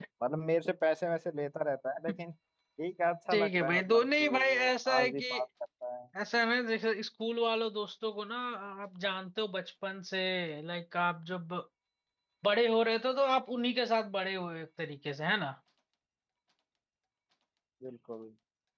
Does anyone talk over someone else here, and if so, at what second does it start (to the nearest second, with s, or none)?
3 s